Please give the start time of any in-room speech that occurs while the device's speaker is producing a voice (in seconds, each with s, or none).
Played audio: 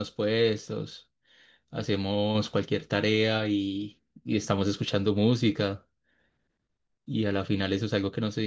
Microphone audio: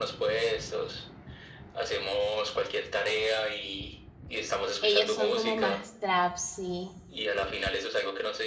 4.8 s